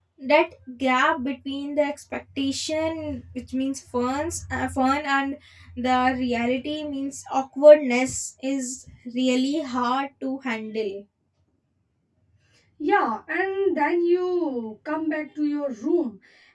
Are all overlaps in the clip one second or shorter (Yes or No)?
Yes